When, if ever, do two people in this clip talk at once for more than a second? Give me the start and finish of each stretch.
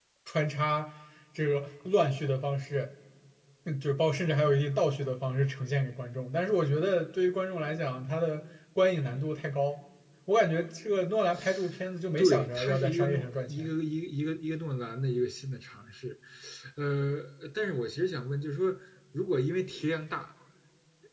12.2-13.7

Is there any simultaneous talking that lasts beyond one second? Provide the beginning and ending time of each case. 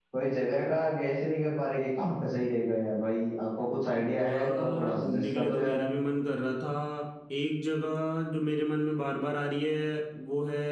4.2-5.8

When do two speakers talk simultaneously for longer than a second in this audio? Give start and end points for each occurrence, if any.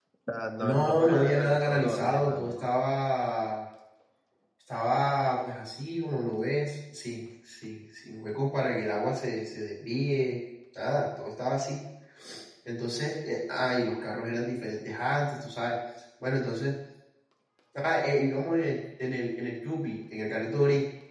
0.6-2.7

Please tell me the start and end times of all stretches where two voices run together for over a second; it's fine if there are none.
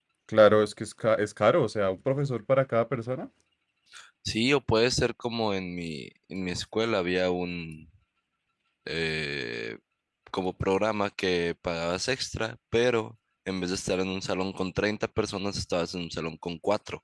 none

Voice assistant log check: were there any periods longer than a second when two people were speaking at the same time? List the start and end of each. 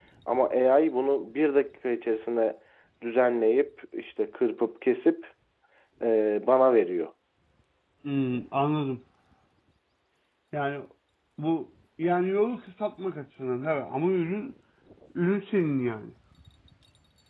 none

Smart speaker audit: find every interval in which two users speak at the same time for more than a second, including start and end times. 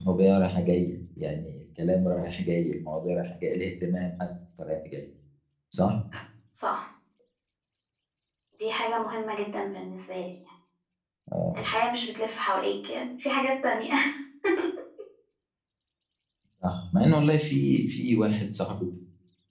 none

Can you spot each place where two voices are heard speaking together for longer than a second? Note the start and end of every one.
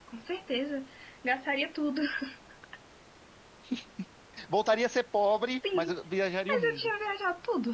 none

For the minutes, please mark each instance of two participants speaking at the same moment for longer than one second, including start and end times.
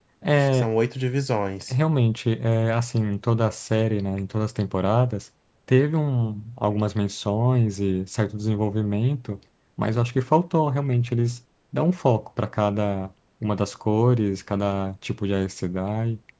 none

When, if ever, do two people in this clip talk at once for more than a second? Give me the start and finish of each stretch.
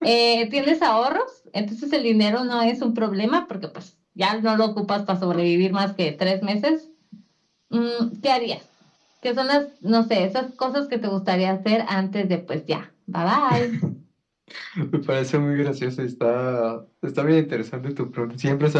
none

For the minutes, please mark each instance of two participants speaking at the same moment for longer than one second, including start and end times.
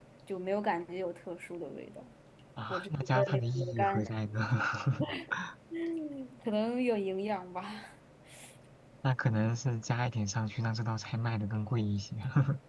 2.7-4.0

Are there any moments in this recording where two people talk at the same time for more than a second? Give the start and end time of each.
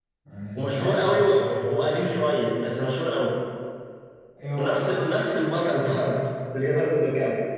0.6-2.0

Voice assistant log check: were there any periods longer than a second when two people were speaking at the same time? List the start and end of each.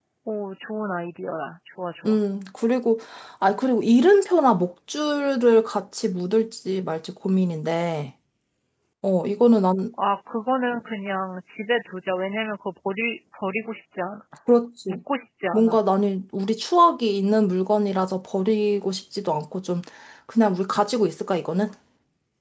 none

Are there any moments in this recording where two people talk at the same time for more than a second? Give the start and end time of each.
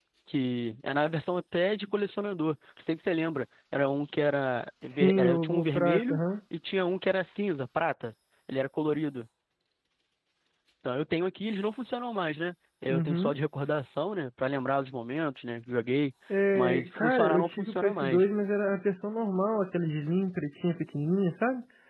4.8-6.2, 16.6-18.2

